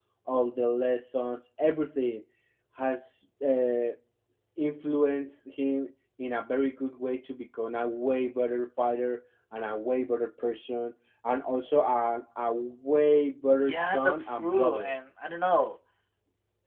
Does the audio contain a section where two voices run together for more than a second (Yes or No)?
Yes